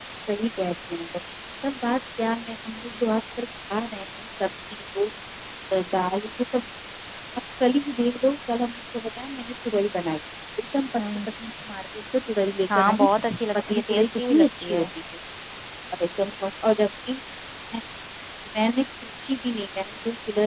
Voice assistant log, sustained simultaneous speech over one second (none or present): present